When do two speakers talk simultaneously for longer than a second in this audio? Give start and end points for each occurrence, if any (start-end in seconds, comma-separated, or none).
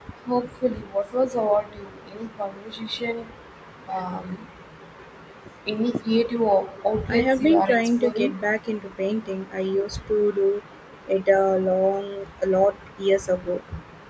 7.1-8.3